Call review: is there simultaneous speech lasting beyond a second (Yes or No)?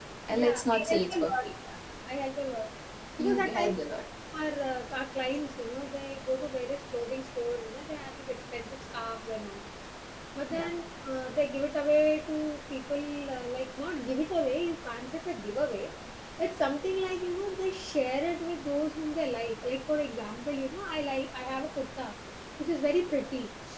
Yes